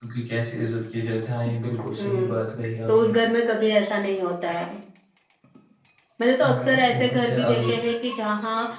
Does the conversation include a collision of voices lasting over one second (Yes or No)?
Yes